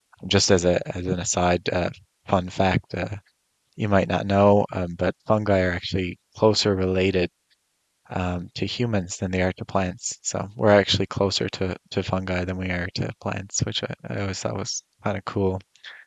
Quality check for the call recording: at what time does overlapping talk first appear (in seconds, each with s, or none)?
none